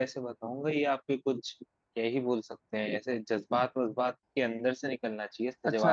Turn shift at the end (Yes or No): Yes